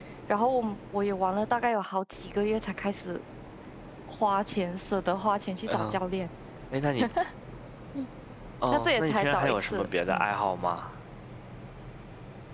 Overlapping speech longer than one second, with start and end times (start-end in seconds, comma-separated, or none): 8.7-10.2